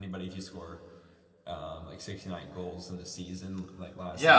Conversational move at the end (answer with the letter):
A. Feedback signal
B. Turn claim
B